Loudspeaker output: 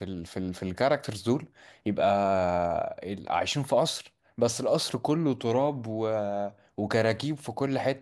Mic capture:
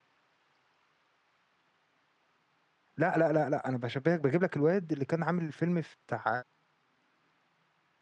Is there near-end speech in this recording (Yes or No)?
Yes